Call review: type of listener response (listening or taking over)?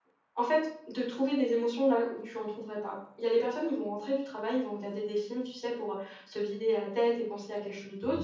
listening